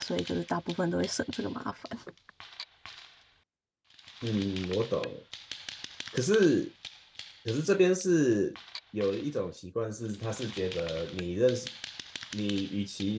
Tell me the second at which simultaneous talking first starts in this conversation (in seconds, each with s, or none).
none